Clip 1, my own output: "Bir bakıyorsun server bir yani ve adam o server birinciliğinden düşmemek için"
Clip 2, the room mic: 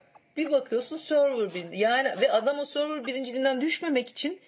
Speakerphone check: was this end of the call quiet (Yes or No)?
Yes